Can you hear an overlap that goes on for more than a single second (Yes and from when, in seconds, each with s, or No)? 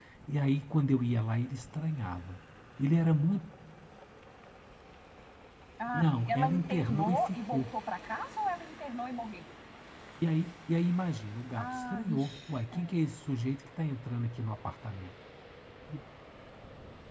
Yes, from 5.9 s